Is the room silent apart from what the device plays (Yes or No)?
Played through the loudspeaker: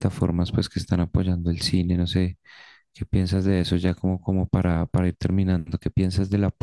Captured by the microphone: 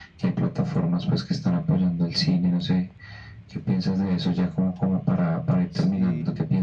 No